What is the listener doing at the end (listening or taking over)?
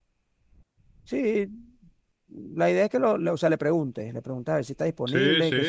taking over